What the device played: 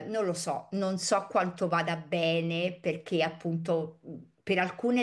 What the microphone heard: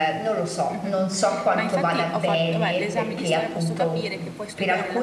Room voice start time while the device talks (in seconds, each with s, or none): 0.7 s